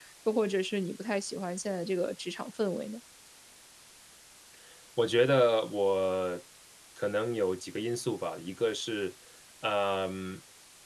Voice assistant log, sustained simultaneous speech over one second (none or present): none